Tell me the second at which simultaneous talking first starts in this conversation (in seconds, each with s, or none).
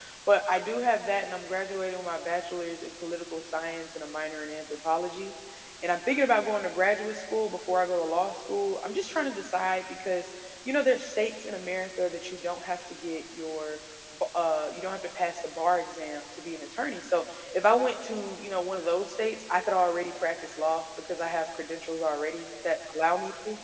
none